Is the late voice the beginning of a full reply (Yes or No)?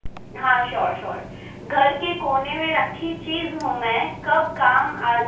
No